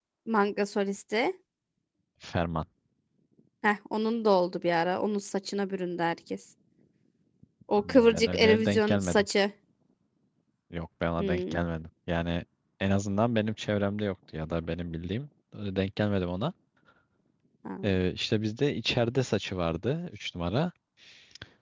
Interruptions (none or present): present